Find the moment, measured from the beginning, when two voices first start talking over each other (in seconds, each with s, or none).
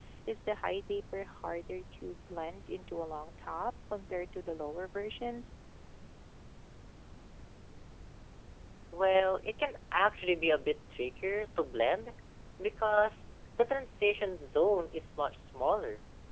none